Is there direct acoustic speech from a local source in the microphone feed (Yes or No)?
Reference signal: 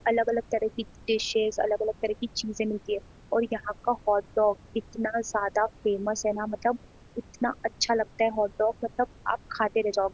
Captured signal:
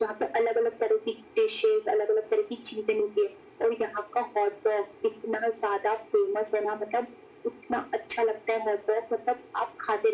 No